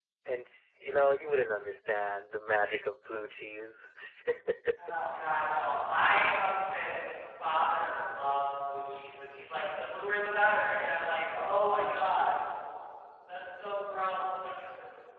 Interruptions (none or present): none